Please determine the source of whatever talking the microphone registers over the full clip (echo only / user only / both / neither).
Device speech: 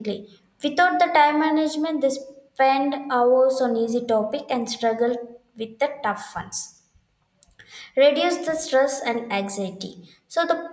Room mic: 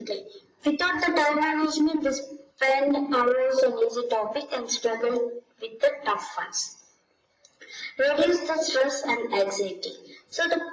echo only